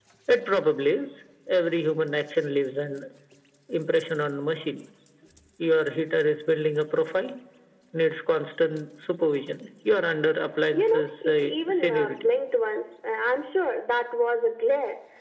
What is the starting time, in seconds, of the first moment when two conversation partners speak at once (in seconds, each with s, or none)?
10.7 s